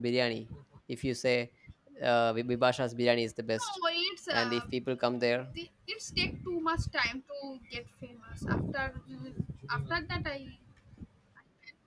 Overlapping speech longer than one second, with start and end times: none

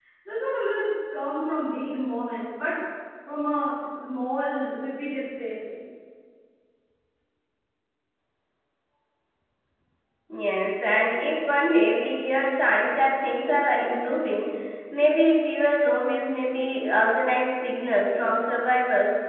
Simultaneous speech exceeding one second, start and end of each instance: none

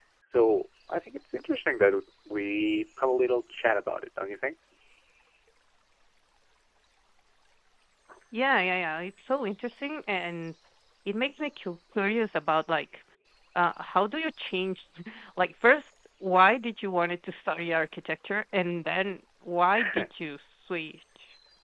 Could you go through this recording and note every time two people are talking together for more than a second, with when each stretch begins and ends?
none

